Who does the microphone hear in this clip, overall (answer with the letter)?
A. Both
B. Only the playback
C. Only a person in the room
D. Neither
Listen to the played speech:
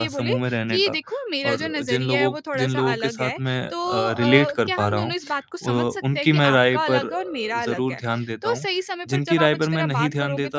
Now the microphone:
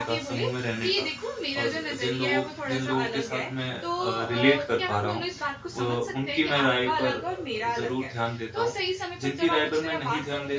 B